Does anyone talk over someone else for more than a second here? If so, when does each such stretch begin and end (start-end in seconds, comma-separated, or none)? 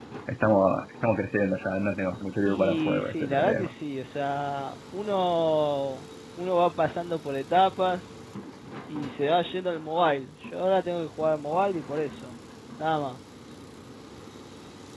2.5-3.7